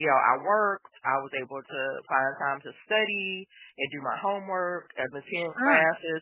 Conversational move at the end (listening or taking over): listening